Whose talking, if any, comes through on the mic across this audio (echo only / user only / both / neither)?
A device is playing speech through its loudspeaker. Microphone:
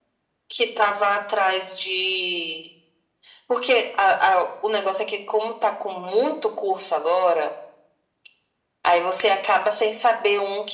echo only